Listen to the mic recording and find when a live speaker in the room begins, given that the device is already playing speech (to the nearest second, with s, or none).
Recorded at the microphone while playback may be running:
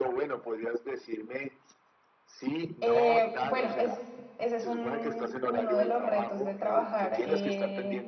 3 s